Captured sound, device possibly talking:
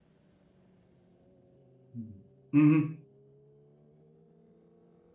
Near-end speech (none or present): present